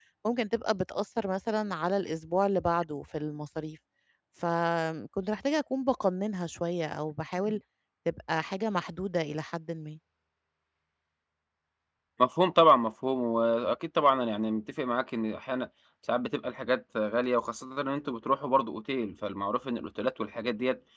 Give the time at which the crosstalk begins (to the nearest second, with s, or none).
none